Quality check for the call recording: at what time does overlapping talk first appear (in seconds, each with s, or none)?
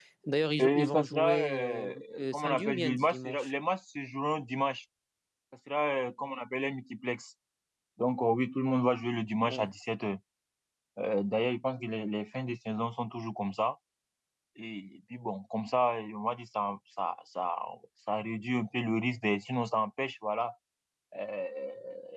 0.6 s